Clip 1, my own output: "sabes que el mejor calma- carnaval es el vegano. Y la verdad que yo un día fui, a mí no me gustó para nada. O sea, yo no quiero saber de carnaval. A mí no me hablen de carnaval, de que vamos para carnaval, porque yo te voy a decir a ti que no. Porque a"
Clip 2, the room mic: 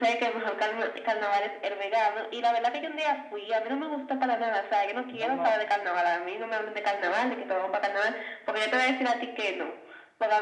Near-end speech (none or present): present